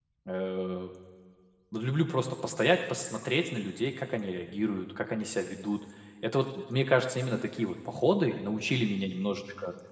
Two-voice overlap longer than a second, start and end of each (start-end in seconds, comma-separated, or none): none